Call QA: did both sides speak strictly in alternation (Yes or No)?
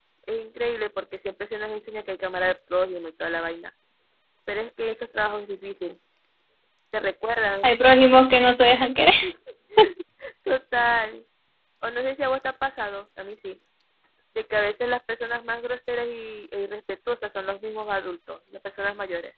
Yes